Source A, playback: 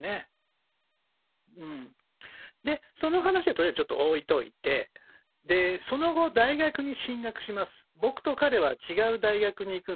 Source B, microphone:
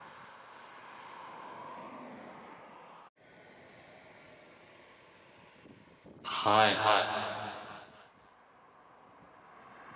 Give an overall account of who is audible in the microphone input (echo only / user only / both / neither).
user only